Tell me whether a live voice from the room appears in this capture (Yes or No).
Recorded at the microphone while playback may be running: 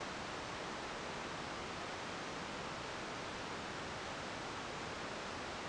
No